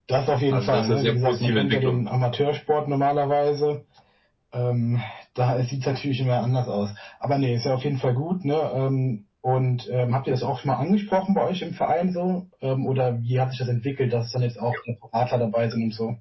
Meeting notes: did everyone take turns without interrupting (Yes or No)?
No